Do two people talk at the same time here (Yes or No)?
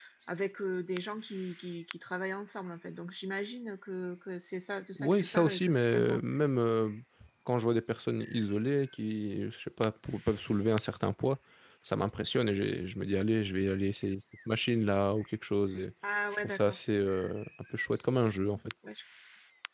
Yes